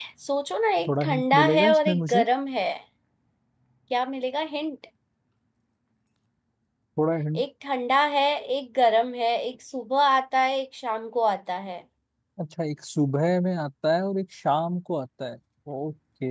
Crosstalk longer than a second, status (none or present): present